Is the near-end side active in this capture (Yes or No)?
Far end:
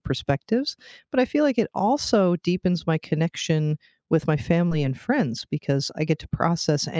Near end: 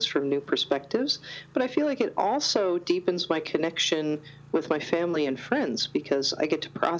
No